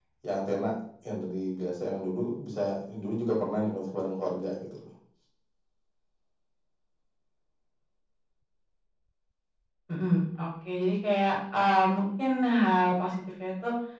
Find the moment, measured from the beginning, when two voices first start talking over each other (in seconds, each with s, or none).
none